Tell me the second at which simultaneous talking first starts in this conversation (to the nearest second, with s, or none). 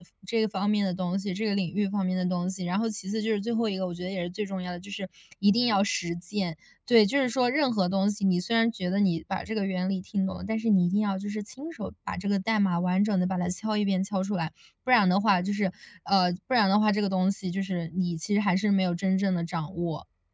none